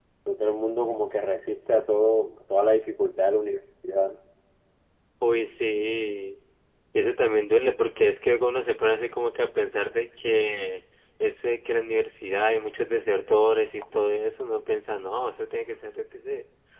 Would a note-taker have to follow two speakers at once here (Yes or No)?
No